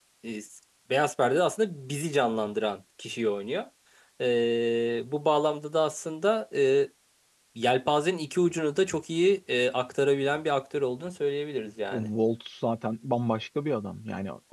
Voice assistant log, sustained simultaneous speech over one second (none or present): none